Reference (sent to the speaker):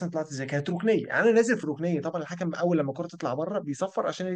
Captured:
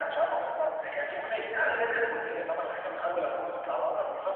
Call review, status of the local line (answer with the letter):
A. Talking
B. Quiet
B